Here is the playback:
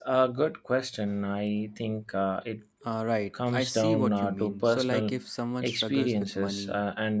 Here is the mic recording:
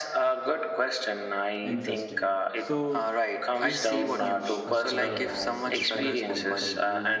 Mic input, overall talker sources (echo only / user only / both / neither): both